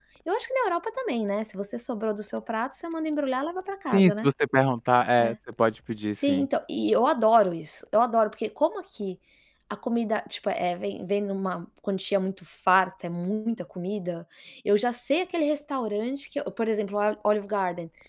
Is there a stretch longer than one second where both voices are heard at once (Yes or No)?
No